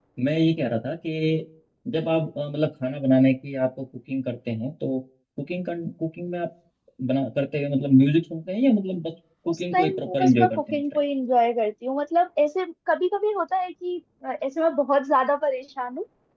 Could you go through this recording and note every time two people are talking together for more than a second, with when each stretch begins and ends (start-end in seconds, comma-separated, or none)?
9.5-10.8